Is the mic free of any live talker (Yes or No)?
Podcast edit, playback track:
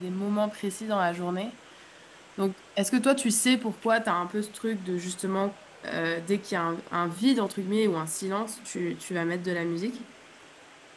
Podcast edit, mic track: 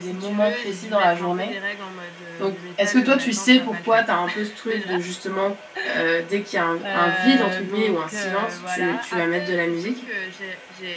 No